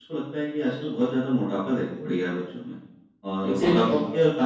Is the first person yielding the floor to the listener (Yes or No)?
No